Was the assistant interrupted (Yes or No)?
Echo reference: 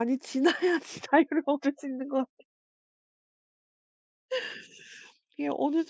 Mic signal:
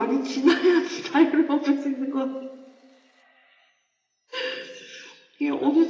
No